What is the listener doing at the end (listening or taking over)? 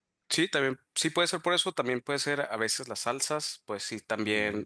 listening